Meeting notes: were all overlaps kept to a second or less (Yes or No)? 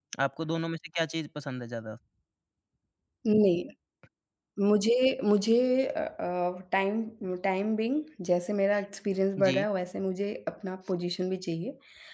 Yes